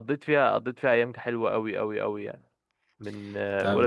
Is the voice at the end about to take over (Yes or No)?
Yes